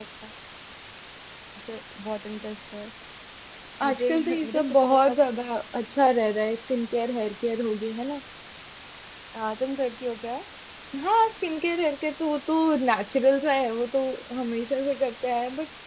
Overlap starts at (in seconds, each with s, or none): 3.9 s